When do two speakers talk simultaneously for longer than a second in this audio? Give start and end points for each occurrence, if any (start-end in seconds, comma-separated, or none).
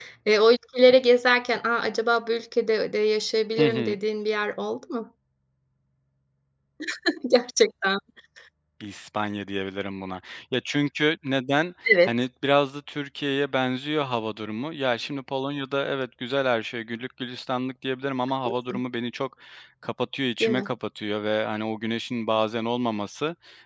none